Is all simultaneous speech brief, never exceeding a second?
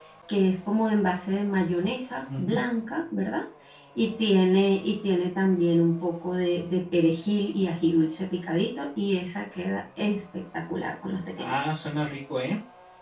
Yes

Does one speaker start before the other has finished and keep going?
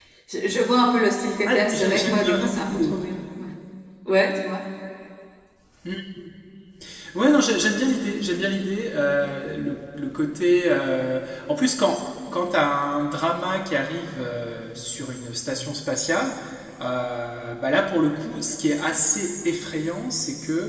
Yes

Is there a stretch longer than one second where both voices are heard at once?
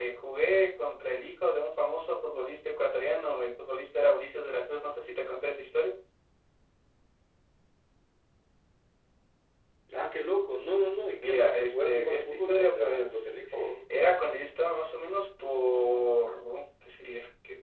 Yes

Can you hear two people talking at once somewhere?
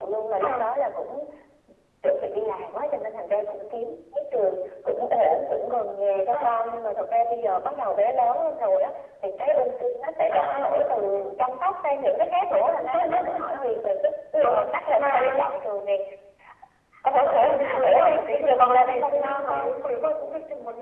Yes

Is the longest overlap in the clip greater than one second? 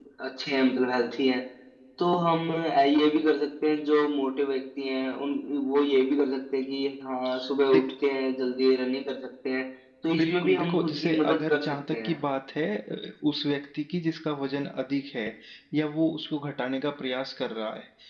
Yes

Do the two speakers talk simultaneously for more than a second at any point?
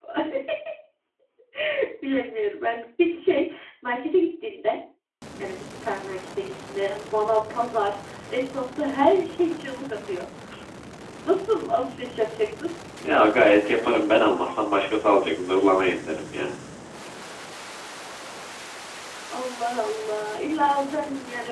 No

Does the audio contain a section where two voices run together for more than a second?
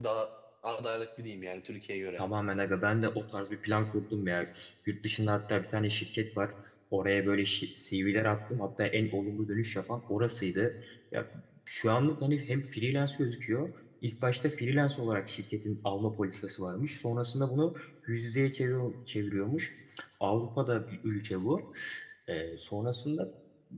No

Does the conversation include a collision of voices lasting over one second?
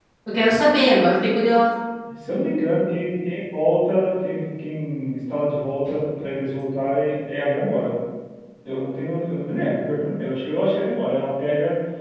No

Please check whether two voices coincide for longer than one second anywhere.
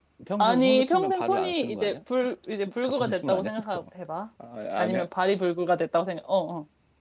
Yes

